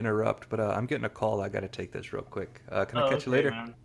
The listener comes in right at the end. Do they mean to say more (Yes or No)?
Yes